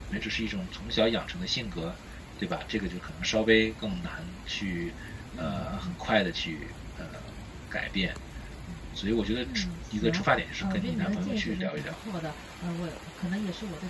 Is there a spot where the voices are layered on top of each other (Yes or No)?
Yes